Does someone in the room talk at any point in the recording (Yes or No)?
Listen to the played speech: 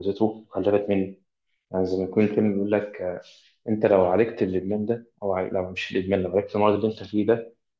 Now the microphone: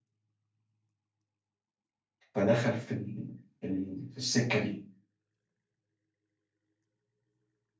Yes